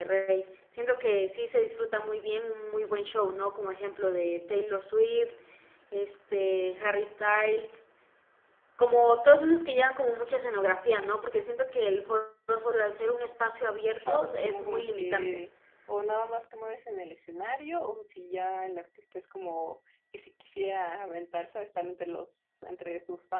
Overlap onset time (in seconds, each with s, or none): 13.9 s